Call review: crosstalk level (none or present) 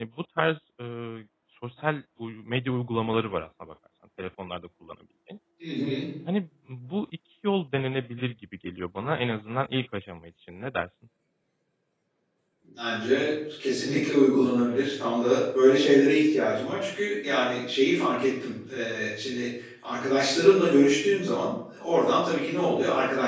none